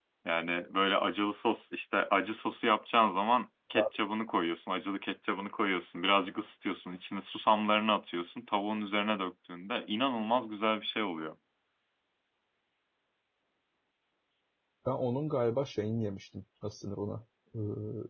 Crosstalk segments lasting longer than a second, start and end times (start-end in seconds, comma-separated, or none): none